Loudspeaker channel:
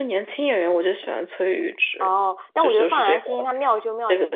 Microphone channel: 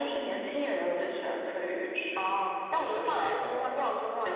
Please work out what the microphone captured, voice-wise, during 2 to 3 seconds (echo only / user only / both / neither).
echo only